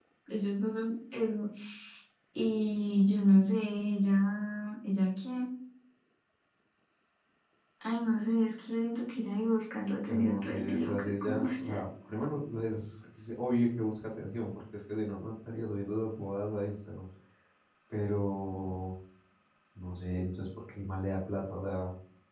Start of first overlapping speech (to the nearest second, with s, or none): 10 s